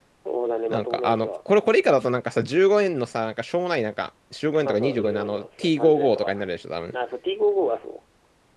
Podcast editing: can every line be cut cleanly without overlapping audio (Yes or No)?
No